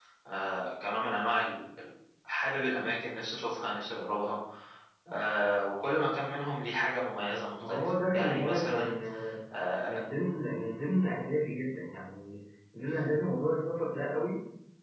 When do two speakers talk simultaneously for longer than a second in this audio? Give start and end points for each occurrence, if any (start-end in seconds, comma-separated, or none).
7.7-8.9